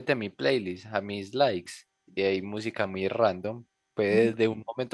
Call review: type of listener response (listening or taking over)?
listening